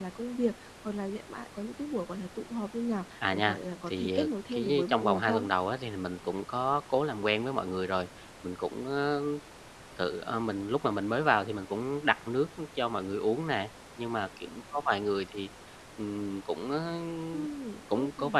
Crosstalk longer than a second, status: present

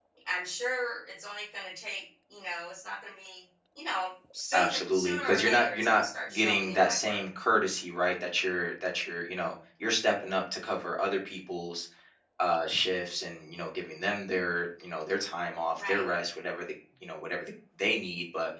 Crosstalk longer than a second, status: present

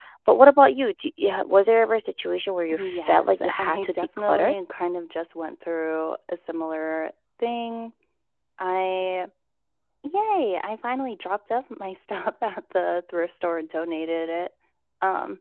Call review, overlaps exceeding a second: present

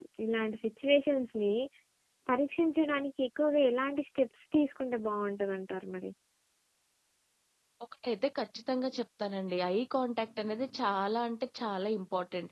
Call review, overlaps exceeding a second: none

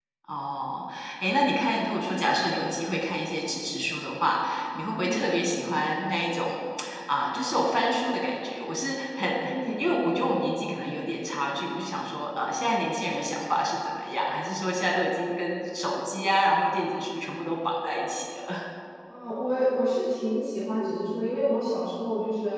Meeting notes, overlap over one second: none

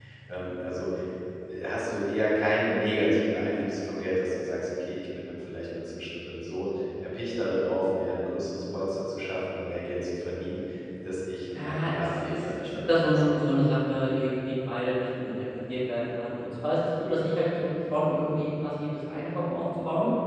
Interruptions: present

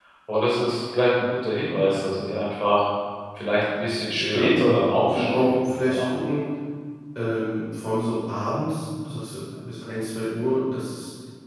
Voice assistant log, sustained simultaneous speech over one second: present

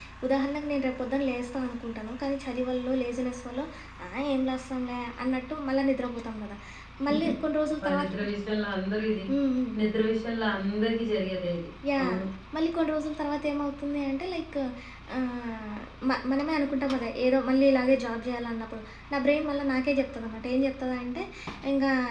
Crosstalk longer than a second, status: none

